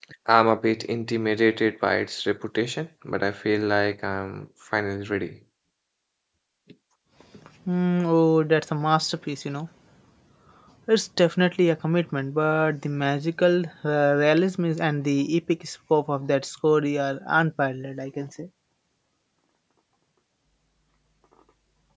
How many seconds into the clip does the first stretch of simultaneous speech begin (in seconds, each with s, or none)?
none